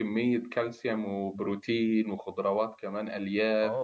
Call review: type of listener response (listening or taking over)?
taking over